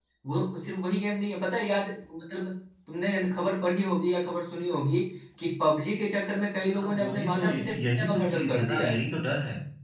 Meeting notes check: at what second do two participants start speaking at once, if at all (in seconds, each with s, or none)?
6.7 s